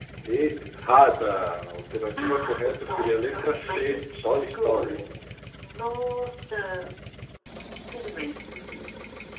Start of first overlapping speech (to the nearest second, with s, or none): 2 s